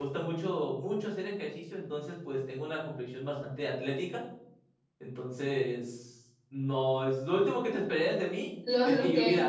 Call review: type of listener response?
taking over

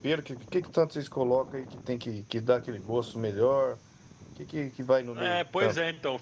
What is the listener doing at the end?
taking over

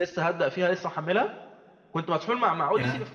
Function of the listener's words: listening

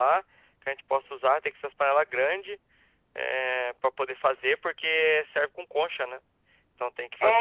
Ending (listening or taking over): listening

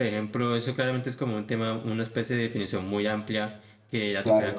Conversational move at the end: listening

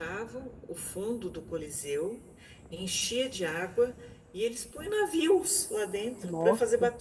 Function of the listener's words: listening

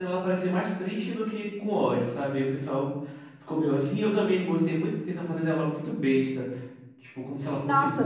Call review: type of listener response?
taking over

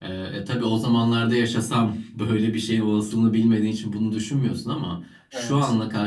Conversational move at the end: listening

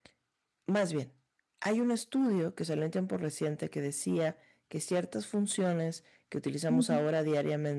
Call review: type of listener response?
listening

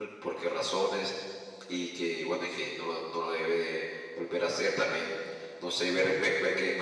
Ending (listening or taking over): listening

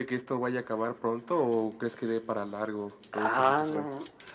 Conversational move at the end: taking over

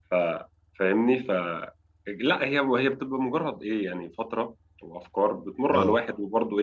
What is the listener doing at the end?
listening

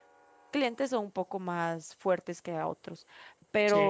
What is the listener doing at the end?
taking over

